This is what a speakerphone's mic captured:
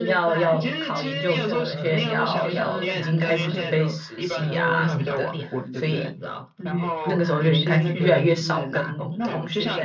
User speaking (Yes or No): Yes